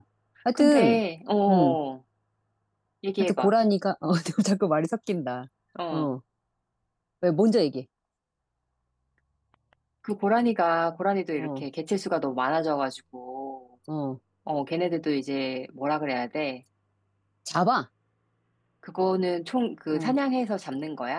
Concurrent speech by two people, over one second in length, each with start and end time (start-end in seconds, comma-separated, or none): none